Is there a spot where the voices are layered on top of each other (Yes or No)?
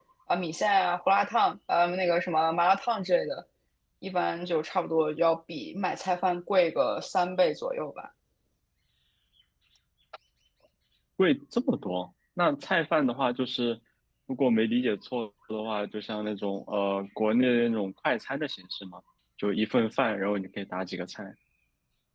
No